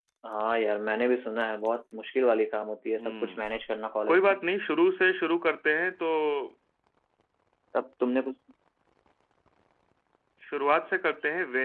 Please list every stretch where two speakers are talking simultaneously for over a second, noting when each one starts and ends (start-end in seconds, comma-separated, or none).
none